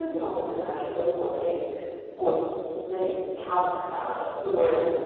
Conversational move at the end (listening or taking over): listening